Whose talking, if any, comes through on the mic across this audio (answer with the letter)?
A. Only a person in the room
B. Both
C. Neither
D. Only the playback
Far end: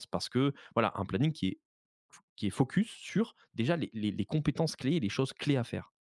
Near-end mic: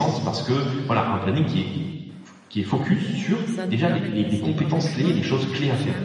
B